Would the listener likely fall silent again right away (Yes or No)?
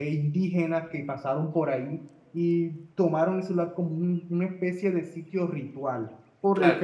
Yes